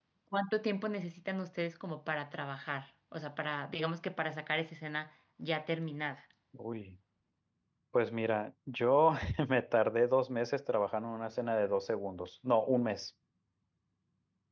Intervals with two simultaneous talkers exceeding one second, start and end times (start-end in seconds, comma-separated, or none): none